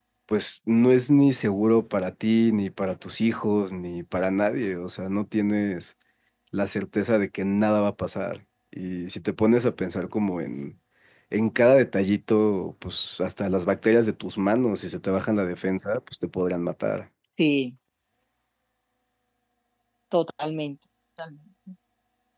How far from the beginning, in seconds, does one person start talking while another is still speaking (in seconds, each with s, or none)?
none